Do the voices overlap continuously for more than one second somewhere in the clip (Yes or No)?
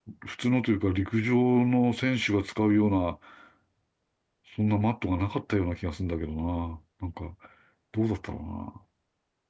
No